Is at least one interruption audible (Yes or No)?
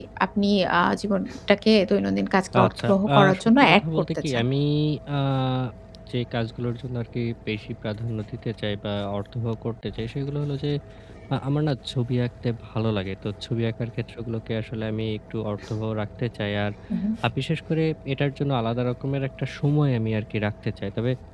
Yes